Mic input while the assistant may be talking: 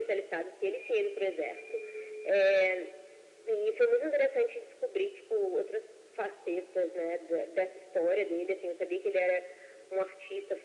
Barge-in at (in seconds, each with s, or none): none